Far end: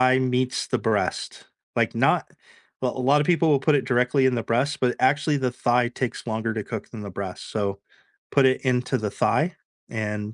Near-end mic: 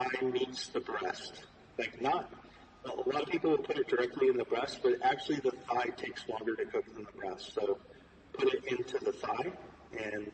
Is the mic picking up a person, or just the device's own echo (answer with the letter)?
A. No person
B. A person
A